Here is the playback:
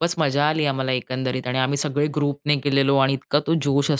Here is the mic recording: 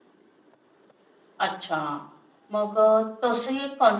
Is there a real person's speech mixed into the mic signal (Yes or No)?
Yes